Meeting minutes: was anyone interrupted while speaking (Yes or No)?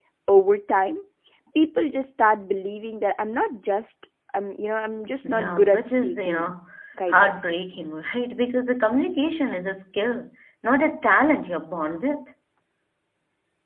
Yes